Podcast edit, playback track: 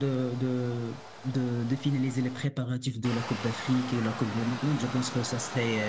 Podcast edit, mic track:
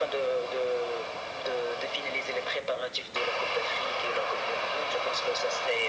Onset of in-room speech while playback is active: none

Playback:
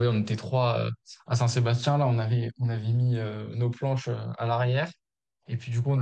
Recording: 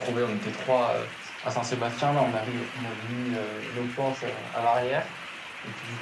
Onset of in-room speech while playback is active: none

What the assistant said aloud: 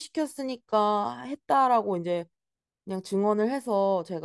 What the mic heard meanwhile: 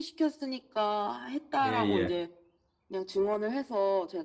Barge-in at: 1.6 s

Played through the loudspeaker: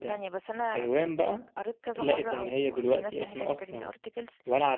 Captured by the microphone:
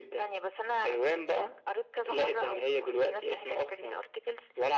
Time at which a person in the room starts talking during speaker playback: none

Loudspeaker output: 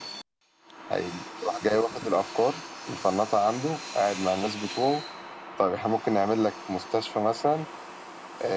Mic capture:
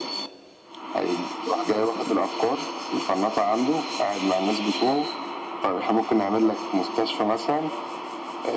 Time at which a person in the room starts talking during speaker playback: none

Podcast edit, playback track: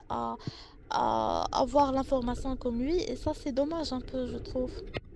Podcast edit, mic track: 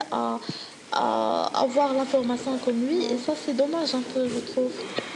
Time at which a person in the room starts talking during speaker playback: 2.9 s

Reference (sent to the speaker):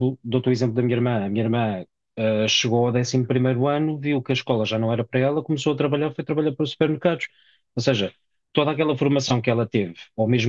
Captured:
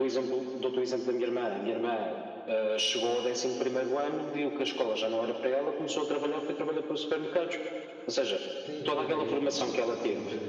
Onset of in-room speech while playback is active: 8.6 s

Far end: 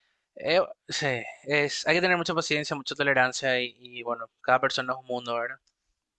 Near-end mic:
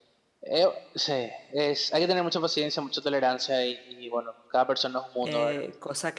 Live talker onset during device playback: 5.2 s

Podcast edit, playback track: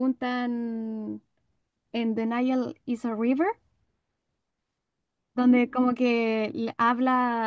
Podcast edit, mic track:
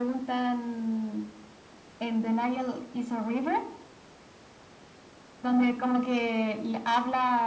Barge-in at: none

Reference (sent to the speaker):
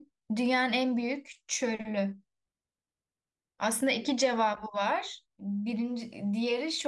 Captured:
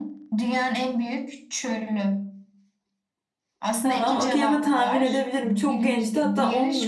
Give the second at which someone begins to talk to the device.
3.8 s

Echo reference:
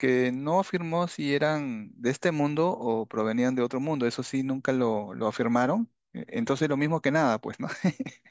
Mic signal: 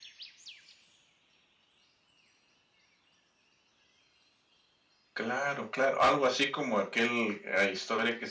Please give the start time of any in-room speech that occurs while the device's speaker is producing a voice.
5.1 s

